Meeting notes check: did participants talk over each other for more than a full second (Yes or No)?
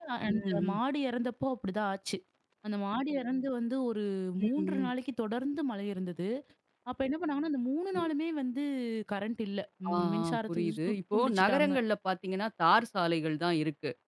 Yes